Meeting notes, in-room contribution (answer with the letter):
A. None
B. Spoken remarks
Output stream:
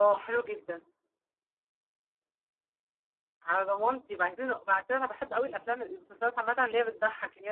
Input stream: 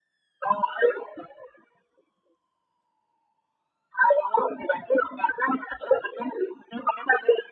A